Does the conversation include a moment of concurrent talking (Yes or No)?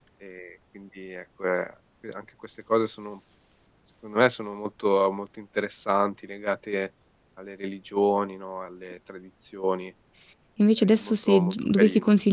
Yes